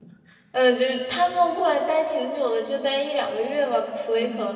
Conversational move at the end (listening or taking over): listening